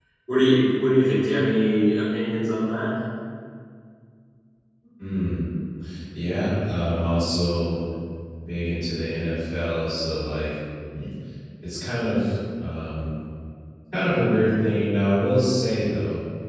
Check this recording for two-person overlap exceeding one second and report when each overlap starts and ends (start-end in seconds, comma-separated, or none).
none